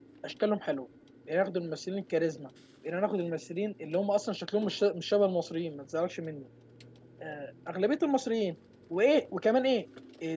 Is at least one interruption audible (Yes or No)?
No